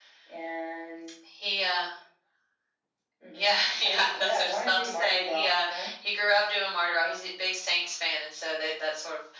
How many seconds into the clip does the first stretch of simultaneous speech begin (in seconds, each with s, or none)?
3.3 s